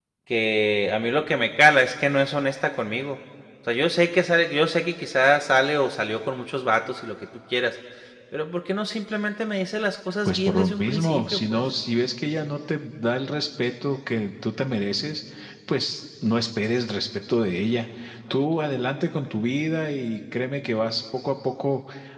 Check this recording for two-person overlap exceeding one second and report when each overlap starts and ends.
10.2-11.6

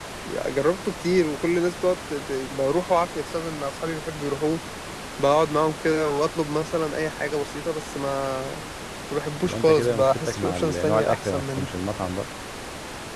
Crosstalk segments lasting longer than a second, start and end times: 9.4-11.7

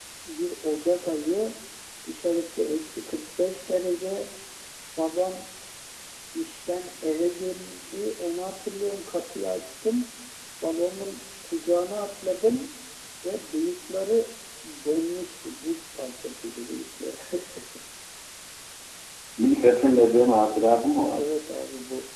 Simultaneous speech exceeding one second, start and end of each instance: none

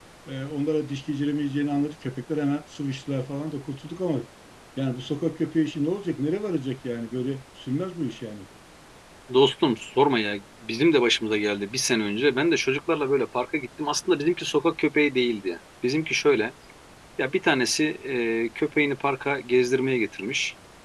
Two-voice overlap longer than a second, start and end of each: none

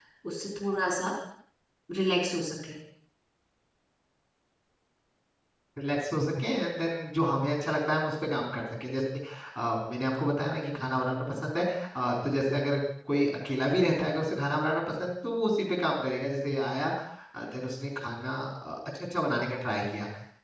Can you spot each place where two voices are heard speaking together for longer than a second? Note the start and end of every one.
none

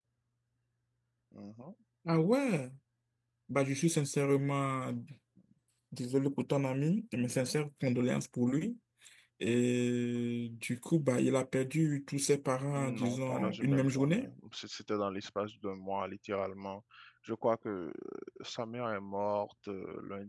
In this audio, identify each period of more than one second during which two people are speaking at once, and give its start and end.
12.7-14.3

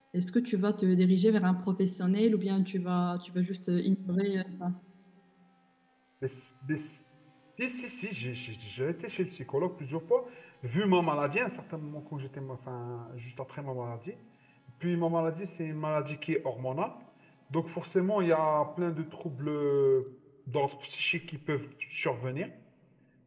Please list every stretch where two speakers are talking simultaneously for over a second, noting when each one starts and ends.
none

